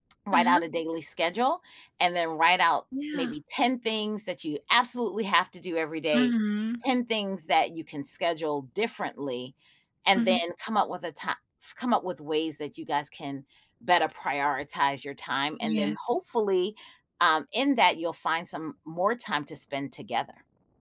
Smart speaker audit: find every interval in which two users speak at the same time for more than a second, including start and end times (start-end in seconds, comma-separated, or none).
none